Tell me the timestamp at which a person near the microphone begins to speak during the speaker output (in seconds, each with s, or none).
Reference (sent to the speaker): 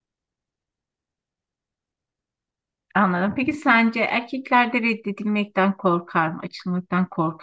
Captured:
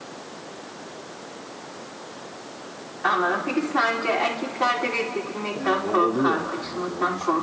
5.5 s